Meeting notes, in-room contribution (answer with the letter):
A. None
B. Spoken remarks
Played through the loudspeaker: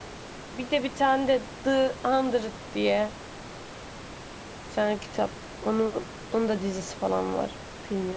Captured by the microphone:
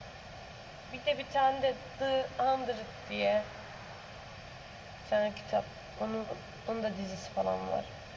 A